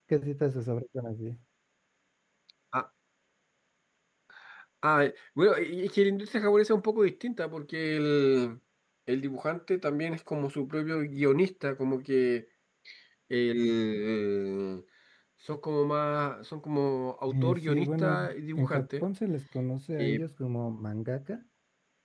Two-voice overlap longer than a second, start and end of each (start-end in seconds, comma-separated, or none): 17.3-19.0